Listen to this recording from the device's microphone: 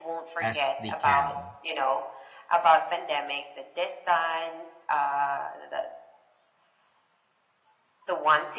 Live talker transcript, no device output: as they can

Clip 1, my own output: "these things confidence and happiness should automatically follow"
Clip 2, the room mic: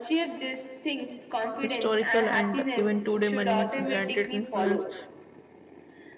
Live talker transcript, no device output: historical and even today money granted influence

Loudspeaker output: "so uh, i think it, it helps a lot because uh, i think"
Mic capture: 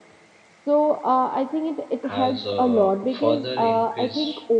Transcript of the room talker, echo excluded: has uh, further increased

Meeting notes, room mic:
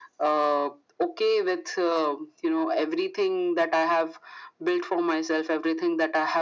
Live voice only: none

